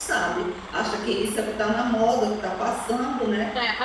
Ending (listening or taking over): taking over